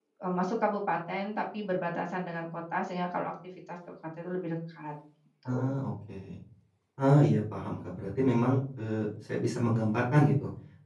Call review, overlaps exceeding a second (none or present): none